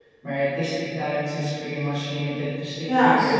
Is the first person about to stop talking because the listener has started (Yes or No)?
Yes